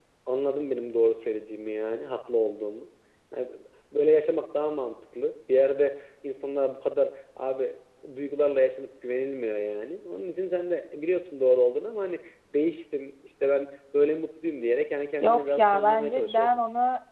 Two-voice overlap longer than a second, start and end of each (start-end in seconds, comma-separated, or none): 15.2-16.6